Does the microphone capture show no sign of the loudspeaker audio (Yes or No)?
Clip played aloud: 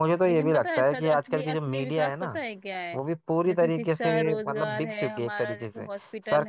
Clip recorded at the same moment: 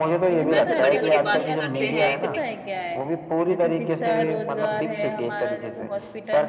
No